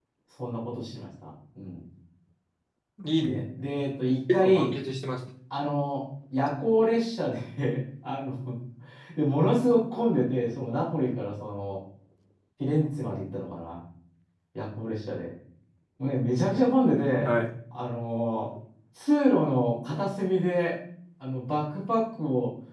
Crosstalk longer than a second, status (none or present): none